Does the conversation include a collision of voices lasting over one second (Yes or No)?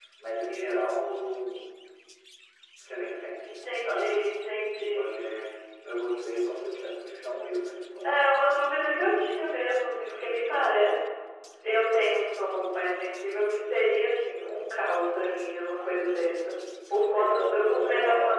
Yes